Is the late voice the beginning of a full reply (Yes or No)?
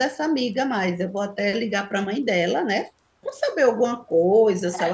Yes